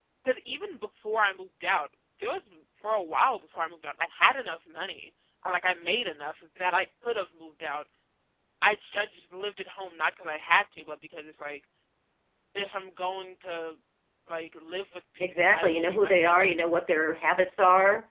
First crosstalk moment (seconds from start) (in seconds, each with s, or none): 15.2 s